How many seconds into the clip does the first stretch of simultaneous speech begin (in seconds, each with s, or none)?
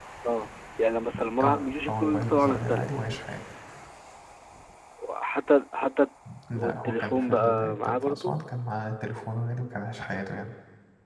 1.4 s